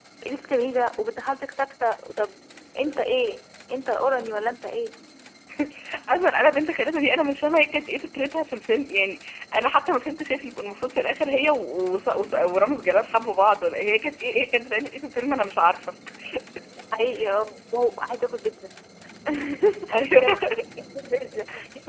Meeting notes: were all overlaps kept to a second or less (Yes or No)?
Yes